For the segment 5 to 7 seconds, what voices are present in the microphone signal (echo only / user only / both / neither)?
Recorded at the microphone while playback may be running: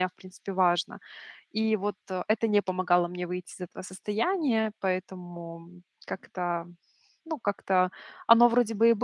user only